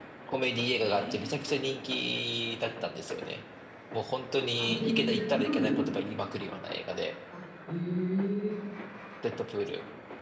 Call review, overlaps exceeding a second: present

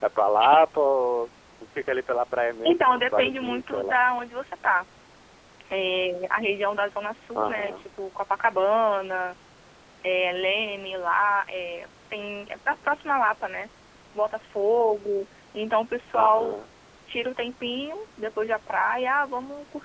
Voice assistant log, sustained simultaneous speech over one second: present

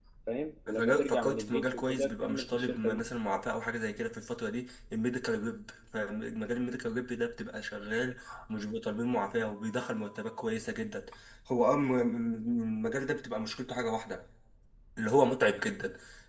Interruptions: present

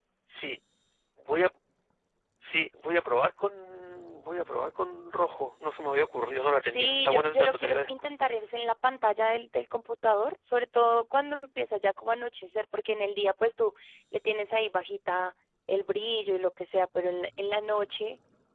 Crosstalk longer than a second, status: present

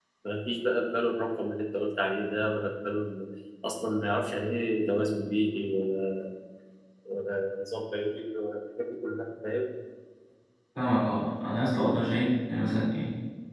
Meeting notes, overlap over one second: none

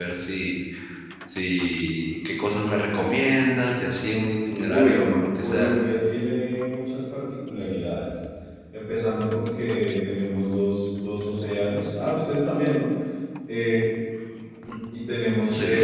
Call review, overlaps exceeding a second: present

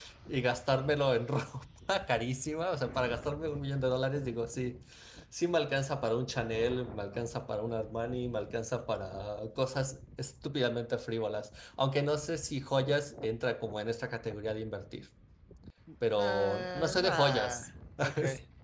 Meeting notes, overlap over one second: present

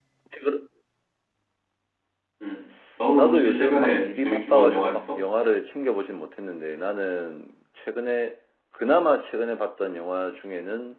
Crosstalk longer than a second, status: present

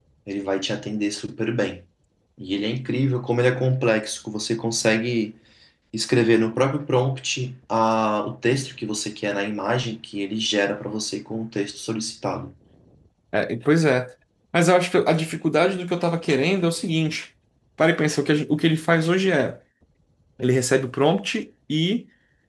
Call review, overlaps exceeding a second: none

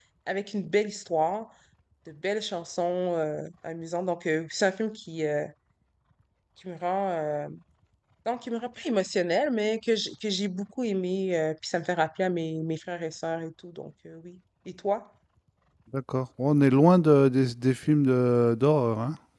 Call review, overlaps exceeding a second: none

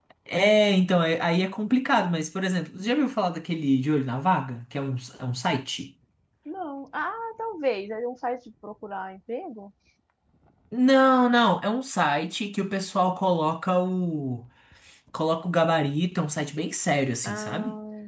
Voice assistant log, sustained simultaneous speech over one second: none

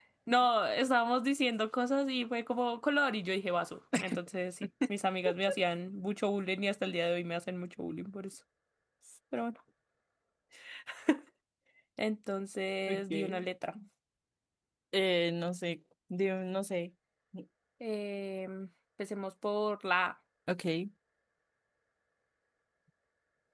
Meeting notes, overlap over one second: none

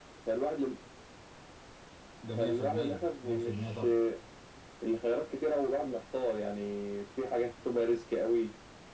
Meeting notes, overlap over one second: present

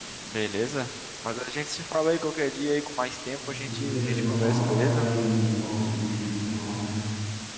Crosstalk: present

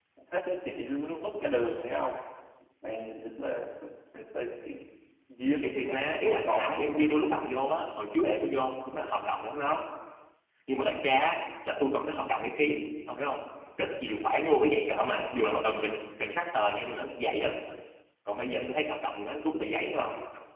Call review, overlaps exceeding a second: present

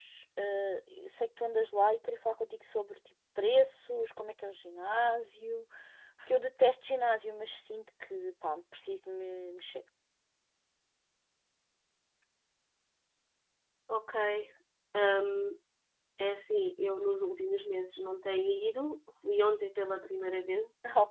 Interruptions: none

